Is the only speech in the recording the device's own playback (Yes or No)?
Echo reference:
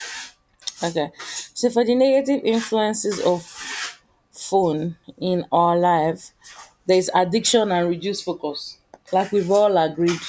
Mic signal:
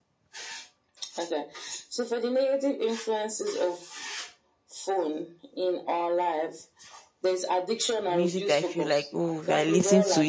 No